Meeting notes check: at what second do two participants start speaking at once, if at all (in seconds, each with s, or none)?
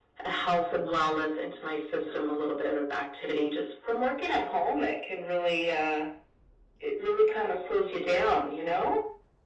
none